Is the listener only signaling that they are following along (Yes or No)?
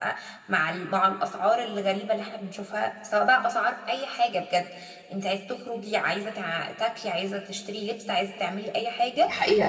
No